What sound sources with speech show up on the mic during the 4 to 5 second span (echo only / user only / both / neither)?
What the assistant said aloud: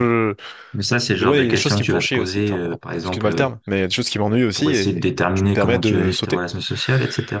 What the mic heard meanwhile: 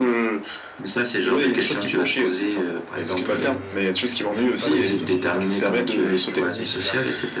both